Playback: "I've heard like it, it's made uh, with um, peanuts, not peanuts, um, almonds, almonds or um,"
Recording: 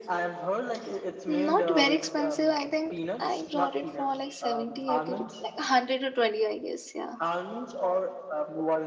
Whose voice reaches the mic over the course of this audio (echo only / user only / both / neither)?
both